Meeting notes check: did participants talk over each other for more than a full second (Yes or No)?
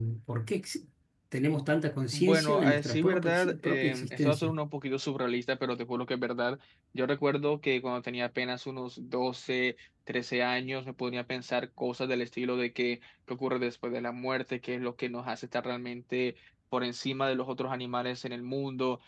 Yes